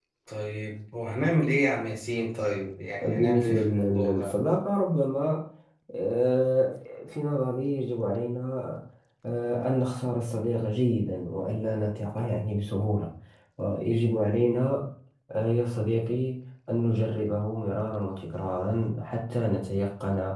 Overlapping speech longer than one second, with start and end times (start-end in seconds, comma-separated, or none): 3.0-4.4